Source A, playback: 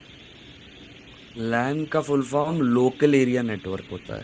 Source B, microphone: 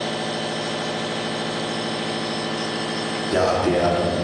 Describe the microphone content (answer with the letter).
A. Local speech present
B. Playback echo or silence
A